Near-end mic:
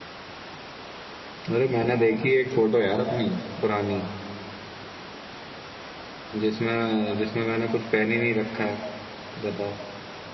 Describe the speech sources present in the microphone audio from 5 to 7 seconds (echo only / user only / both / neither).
user only